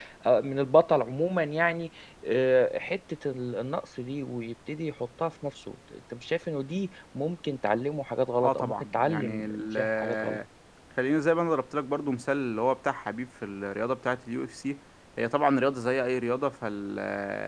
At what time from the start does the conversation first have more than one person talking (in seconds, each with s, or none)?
8.4 s